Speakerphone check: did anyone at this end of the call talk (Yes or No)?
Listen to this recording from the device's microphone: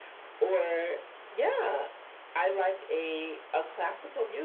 No